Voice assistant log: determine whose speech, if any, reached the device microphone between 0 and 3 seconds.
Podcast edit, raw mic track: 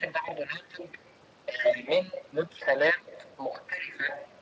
echo only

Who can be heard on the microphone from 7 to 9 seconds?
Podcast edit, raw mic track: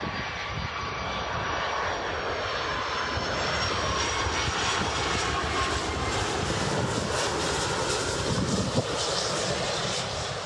neither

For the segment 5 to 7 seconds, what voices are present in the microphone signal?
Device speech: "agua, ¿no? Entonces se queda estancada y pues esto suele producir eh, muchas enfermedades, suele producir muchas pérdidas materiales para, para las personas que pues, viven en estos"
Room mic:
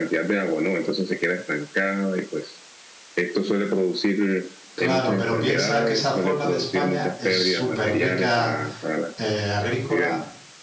both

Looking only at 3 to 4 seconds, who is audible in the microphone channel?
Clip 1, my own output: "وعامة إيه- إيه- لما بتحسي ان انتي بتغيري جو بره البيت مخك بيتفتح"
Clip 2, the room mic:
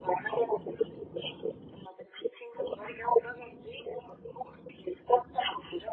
echo only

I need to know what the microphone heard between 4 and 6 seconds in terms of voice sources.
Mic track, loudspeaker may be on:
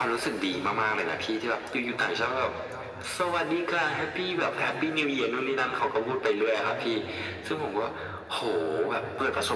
both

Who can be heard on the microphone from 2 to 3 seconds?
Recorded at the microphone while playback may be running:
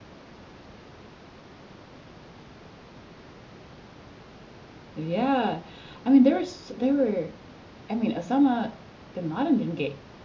neither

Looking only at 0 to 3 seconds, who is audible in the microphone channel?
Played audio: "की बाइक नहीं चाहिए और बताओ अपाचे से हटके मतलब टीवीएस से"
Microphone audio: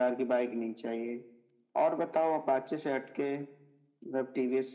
echo only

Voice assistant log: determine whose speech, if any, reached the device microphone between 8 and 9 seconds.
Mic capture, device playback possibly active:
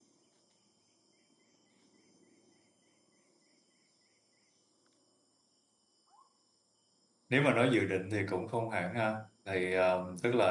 user only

